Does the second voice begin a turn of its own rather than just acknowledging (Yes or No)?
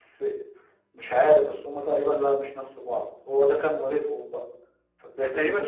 Yes